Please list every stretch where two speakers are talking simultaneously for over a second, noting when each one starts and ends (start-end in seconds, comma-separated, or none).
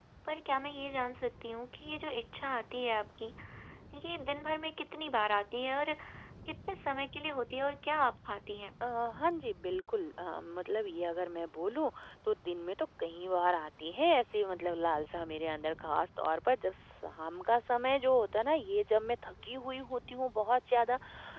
none